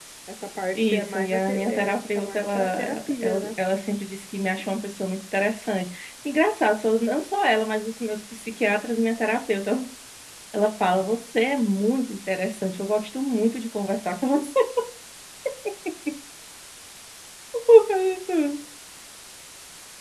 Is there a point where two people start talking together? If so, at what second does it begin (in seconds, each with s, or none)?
0.8 s